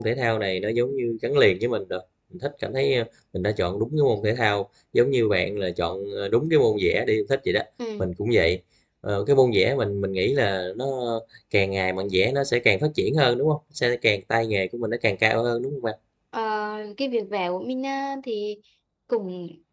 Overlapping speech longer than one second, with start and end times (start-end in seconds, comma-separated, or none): none